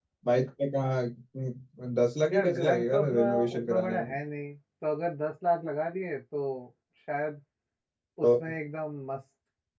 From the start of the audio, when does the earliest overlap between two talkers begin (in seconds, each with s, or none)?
2.3 s